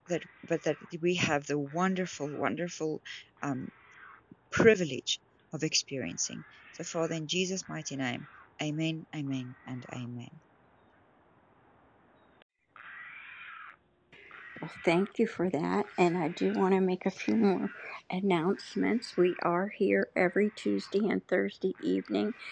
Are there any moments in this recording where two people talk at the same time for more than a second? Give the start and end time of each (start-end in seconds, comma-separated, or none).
none